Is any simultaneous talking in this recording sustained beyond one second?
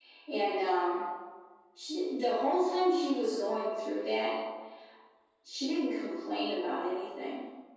No

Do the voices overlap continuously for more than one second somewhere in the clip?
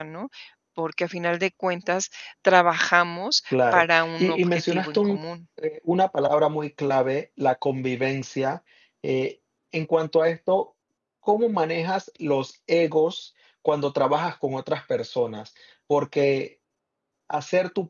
Yes, from 3.5 s

